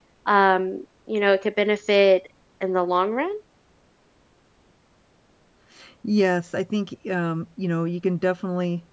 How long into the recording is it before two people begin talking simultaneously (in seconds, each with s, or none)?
none